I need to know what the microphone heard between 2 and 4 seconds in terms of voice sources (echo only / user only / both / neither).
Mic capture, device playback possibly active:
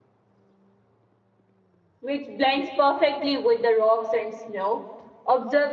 user only